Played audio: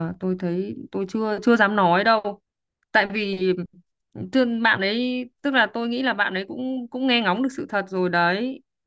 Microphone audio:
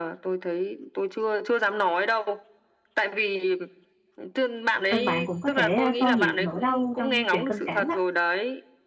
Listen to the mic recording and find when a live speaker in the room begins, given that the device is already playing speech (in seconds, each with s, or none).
4.9 s